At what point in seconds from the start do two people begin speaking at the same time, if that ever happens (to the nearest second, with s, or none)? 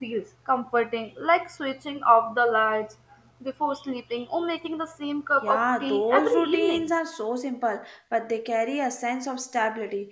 5 s